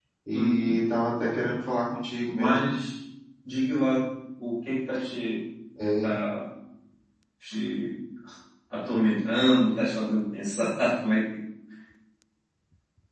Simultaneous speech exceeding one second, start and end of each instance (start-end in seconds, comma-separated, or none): none